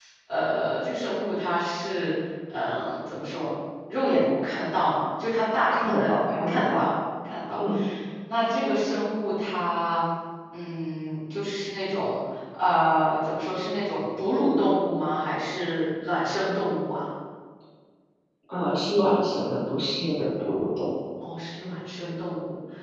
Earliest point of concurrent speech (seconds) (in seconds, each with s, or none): 5.7 s